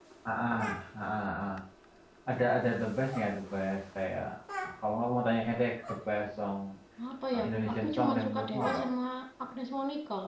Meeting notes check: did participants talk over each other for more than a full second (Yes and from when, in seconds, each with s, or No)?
Yes, from 7.3 s